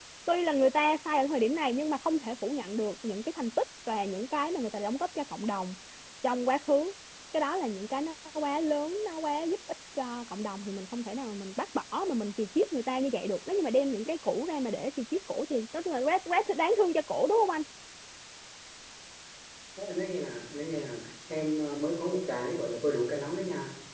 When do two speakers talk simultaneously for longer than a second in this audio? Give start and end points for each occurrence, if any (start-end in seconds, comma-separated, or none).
none